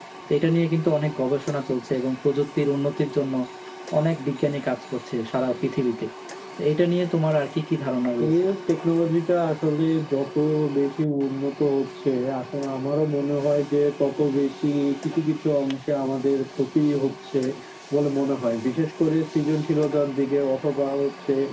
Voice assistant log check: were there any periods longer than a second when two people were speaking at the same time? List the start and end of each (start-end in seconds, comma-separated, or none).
none